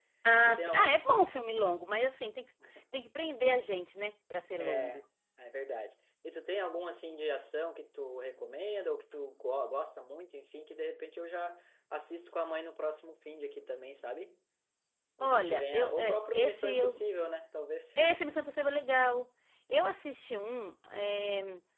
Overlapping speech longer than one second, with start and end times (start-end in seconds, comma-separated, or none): 15.2-17.0